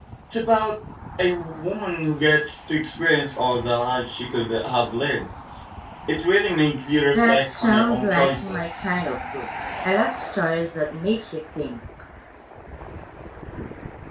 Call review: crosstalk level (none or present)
present